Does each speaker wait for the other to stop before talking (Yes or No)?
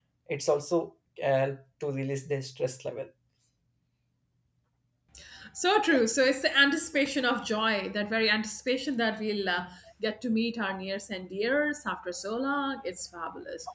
Yes